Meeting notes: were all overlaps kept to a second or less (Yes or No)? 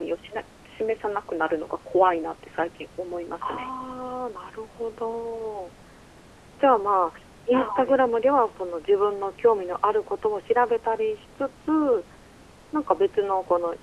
Yes